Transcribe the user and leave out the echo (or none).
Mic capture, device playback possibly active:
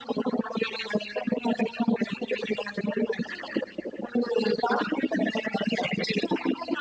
none